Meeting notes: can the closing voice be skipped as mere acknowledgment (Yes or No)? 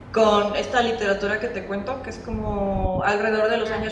Yes